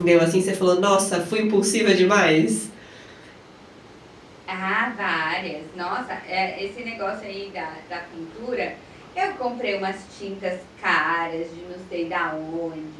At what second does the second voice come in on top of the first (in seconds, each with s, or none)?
none